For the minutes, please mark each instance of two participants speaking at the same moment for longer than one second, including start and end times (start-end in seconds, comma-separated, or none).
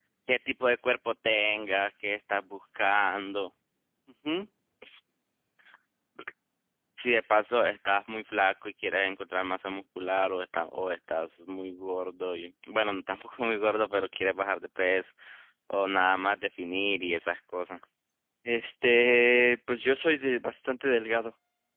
none